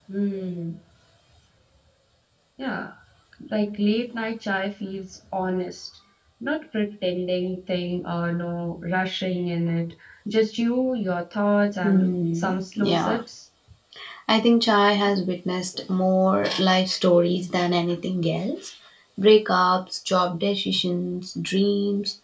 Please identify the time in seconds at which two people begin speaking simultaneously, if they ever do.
11.8 s

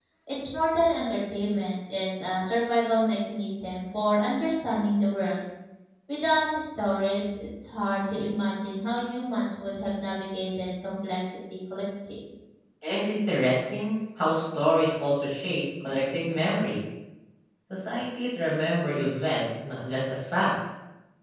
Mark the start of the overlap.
none

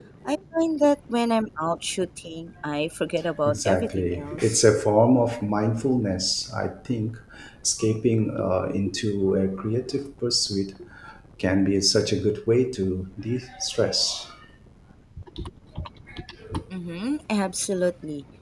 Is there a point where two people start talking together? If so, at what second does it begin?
3.5 s

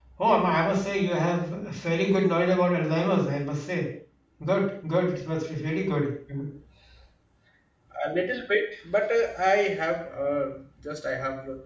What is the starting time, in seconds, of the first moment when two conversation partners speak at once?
none

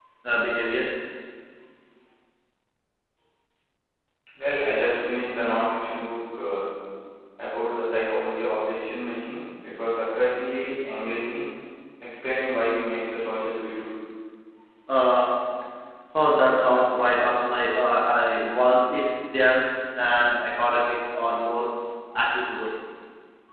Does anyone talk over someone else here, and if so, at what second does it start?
none

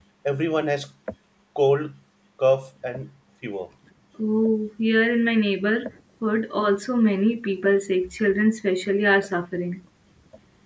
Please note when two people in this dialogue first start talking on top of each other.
none

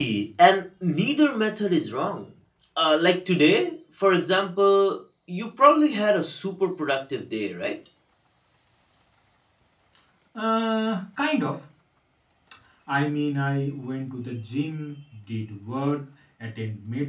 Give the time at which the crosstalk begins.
none

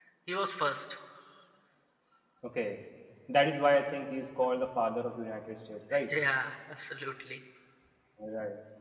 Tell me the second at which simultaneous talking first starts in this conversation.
none

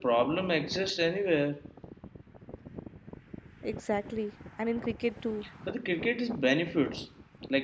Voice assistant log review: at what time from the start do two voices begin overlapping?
none

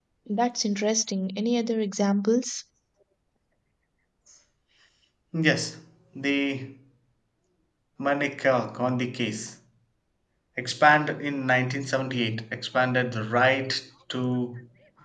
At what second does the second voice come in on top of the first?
none

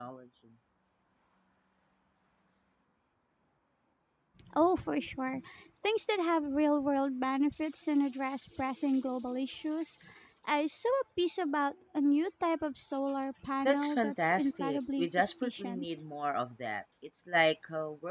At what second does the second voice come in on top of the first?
13.7 s

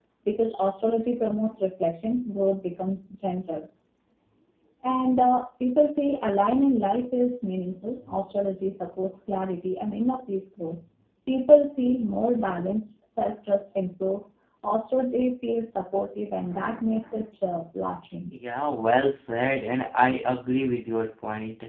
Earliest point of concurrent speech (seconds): none

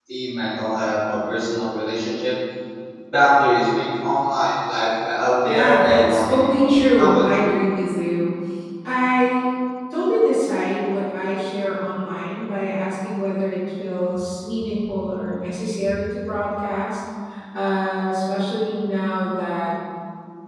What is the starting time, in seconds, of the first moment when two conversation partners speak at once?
5.4 s

